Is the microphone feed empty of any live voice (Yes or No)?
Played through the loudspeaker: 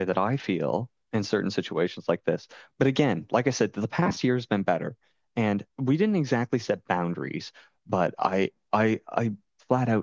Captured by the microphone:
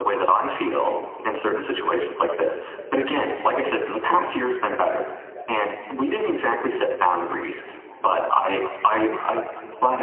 Yes